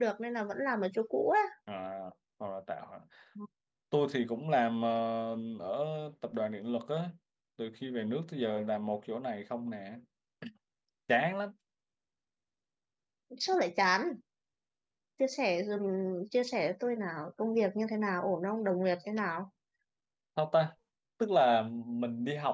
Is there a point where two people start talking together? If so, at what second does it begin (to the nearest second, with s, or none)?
none